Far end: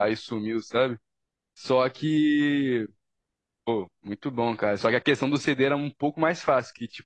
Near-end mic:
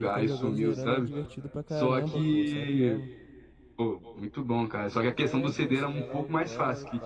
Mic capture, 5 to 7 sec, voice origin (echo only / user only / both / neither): both